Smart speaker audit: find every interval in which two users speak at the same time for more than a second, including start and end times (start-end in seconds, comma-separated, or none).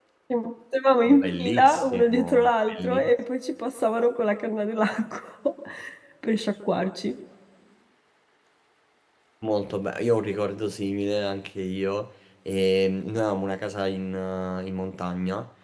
1.2-3.1